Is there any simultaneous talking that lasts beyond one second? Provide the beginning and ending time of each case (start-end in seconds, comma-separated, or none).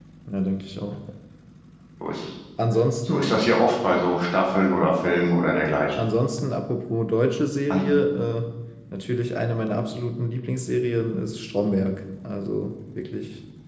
none